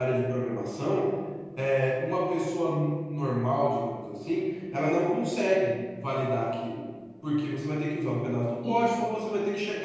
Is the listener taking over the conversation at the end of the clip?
No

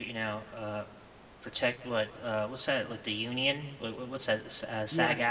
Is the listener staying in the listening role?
No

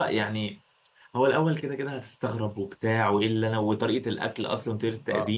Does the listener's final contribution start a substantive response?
Yes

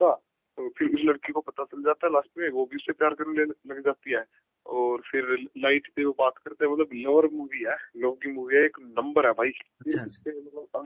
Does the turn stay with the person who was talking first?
Yes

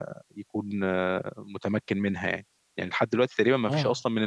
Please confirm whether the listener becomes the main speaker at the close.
No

